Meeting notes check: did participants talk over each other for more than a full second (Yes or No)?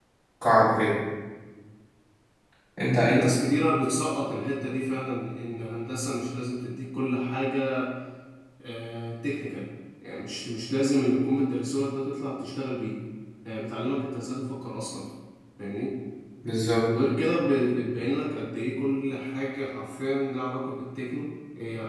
No